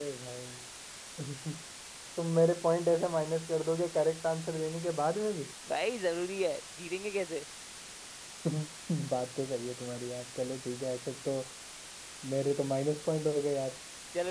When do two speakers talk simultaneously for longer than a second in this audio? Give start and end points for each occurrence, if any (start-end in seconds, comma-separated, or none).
none